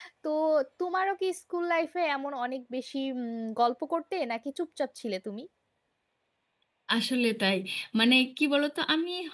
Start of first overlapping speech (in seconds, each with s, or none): none